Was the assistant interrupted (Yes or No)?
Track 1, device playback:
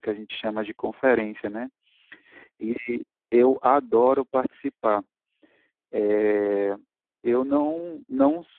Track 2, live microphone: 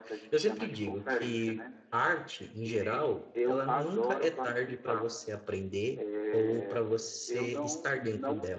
Yes